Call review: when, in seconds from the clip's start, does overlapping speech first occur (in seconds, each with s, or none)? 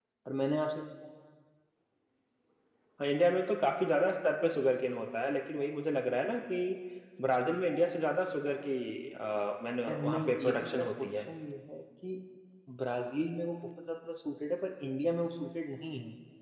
9.9 s